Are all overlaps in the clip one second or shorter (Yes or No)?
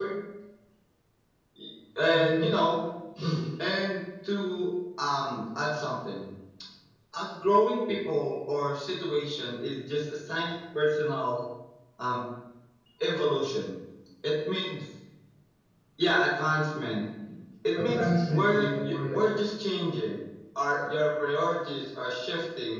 No